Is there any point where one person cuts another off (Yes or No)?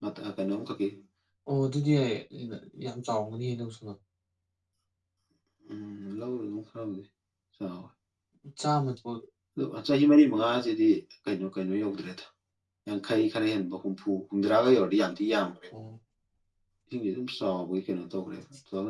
No